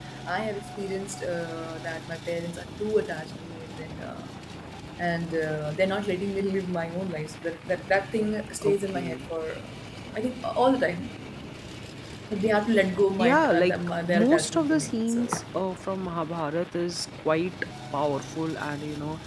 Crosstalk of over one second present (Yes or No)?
Yes